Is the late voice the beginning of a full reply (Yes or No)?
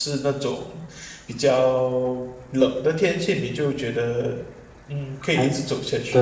Yes